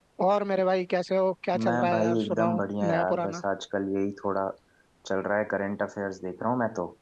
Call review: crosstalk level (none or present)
present